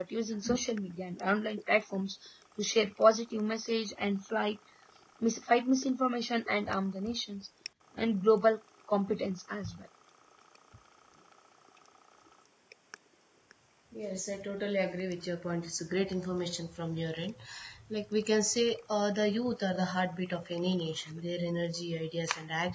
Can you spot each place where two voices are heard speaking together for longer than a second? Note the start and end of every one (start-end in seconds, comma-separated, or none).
none